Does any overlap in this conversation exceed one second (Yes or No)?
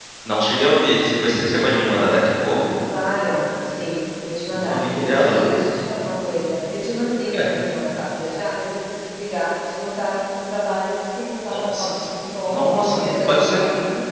Yes